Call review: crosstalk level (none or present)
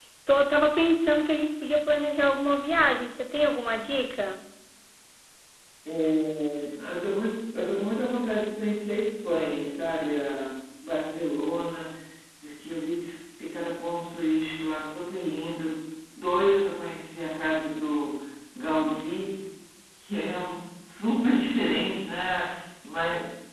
none